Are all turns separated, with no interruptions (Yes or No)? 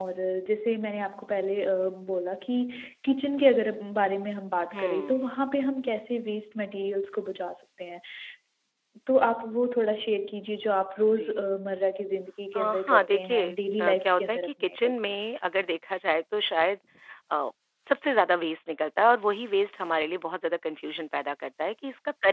No